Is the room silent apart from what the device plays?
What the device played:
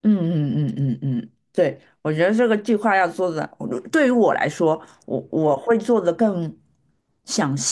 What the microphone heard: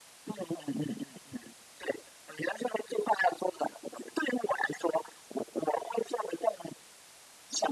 Yes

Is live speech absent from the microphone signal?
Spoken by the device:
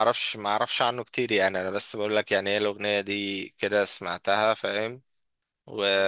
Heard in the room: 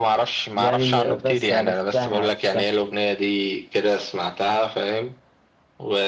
No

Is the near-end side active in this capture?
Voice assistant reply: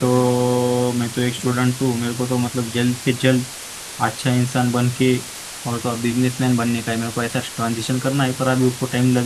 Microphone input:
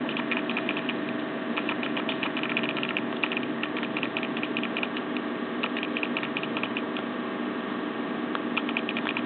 No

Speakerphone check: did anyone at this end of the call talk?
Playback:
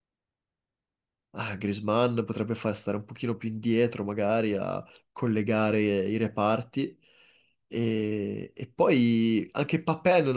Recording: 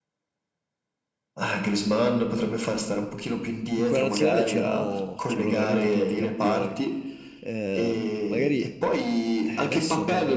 Yes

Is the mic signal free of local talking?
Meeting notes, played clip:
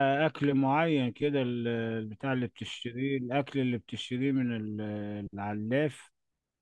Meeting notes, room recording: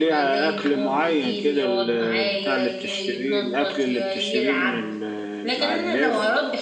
No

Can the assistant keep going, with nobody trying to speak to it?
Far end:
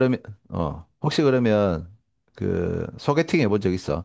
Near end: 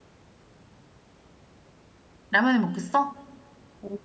No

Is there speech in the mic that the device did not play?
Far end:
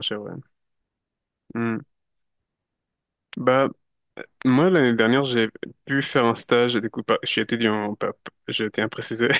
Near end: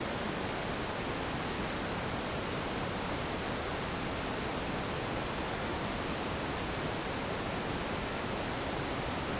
No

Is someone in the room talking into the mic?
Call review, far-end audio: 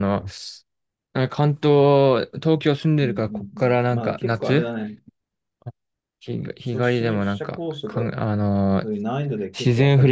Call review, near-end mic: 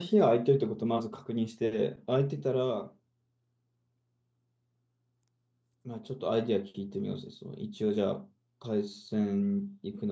Yes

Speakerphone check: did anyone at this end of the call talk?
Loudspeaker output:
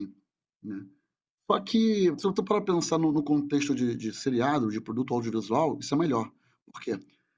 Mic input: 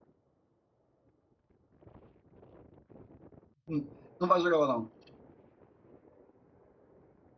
Yes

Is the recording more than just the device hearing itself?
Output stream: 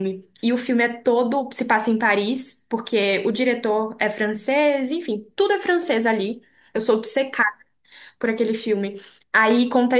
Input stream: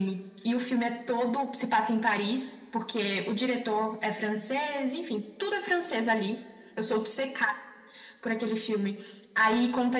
No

